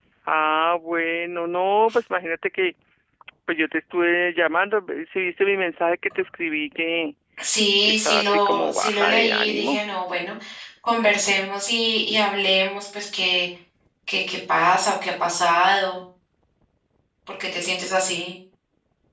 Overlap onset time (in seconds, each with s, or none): 7.8 s